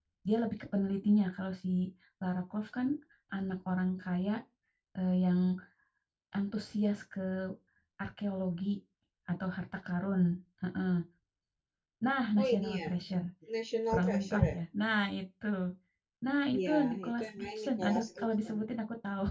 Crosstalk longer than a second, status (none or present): present